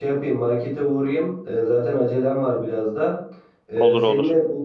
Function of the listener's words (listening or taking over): listening